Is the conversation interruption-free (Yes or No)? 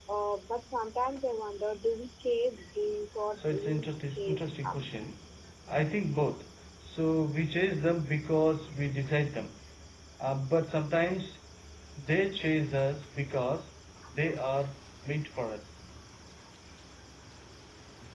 No